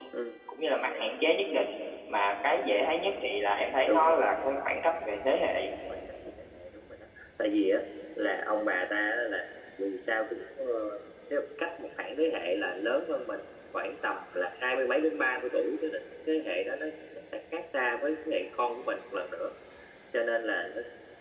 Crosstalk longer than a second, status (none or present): none